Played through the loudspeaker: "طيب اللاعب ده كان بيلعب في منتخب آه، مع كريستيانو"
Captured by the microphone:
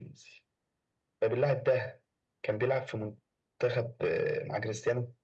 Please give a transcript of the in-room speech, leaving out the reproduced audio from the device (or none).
none